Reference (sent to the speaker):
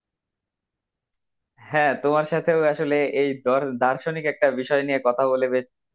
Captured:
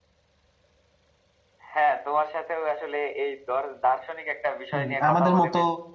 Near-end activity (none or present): present